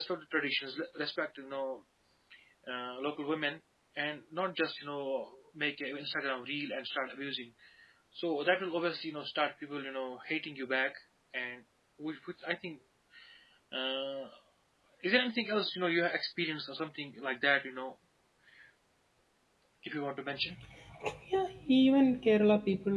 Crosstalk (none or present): none